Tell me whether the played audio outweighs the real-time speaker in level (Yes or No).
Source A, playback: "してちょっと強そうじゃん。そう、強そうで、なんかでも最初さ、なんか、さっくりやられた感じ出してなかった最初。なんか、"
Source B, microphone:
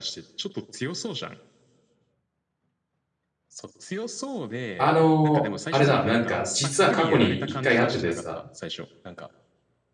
No